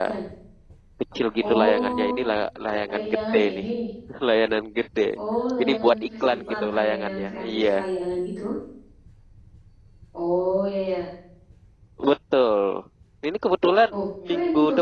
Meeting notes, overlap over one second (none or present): present